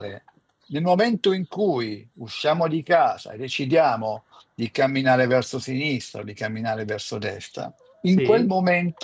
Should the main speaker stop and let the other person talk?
No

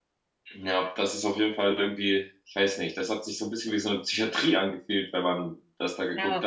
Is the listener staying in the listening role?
Yes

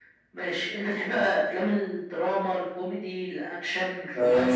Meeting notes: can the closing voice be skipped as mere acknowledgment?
No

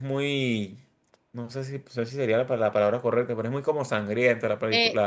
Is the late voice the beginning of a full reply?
Yes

